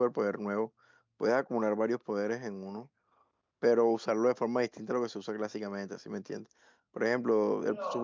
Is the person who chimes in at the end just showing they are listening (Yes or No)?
Yes